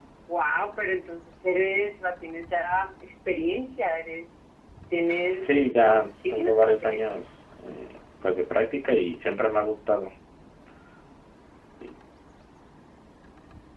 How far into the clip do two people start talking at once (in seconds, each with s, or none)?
5.4 s